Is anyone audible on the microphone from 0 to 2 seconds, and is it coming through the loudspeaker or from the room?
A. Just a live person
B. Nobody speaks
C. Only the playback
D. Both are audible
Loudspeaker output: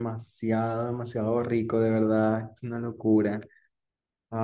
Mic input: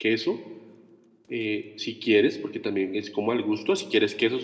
A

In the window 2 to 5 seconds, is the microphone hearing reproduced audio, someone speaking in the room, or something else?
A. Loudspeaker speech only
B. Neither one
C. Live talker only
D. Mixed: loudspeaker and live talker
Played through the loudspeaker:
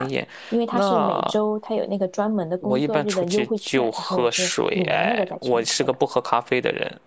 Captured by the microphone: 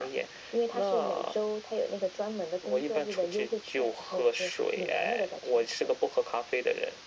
A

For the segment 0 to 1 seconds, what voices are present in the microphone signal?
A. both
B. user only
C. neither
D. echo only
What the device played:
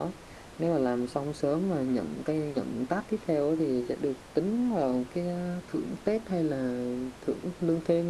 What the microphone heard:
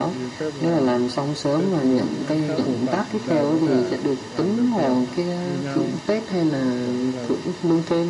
A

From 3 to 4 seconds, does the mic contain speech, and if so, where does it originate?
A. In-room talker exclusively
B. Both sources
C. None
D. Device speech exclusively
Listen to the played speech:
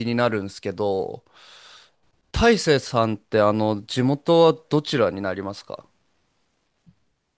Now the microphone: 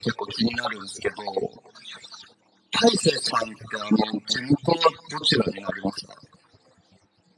D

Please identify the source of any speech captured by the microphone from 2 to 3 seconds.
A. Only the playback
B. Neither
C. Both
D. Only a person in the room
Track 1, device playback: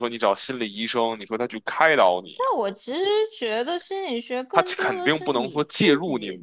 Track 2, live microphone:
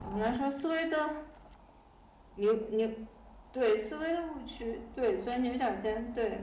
D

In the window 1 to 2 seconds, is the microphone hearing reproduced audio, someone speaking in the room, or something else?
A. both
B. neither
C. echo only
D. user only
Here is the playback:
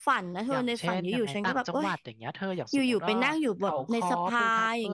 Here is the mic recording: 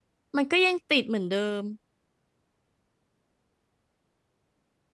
D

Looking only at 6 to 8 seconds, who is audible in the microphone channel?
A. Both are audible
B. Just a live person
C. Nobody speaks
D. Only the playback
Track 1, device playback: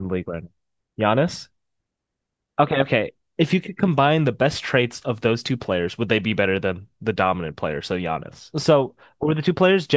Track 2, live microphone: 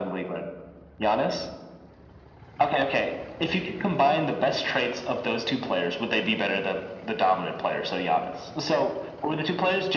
D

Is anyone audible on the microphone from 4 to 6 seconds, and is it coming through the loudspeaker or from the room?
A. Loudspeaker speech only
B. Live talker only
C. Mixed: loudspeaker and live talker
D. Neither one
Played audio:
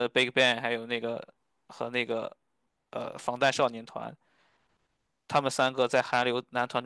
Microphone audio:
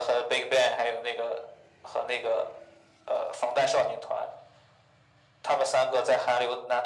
A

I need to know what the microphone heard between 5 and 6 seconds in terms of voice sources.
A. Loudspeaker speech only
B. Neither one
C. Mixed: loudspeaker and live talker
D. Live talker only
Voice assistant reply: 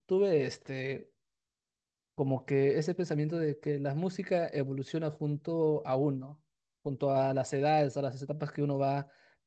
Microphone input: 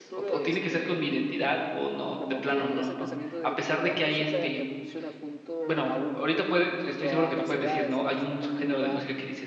C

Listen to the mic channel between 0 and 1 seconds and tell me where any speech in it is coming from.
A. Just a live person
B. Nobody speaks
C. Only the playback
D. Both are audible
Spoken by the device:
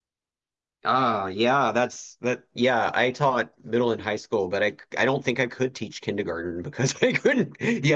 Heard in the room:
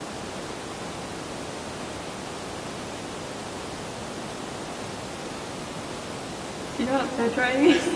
B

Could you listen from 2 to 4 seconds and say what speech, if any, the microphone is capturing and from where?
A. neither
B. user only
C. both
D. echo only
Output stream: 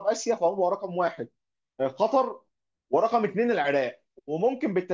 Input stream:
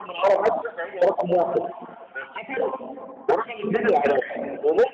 D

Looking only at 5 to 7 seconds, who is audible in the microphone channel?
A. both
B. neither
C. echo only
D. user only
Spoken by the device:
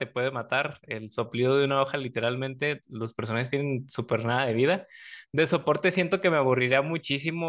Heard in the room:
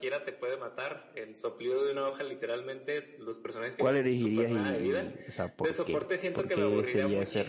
A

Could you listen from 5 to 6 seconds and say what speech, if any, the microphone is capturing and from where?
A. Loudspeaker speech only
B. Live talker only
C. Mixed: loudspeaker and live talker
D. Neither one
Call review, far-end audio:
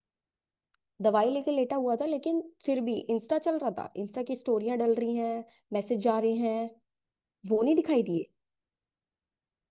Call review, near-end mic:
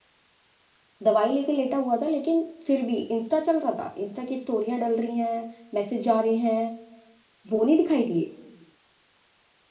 A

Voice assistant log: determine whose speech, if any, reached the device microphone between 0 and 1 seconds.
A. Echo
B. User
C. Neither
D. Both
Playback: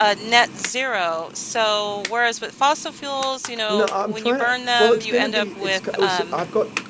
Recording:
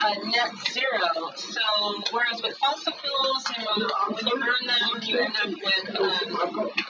A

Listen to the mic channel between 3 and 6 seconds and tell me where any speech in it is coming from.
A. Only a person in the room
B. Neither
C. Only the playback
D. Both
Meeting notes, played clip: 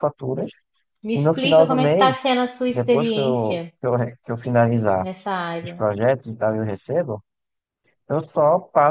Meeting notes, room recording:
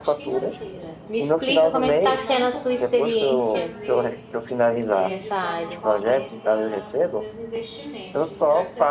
D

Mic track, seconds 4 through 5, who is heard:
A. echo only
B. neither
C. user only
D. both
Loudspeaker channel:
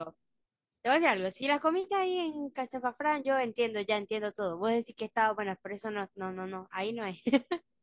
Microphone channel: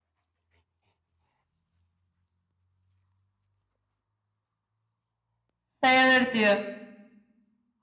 B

